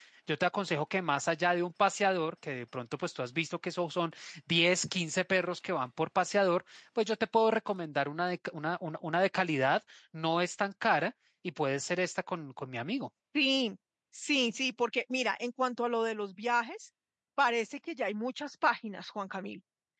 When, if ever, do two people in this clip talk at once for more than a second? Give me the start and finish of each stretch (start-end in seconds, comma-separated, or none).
none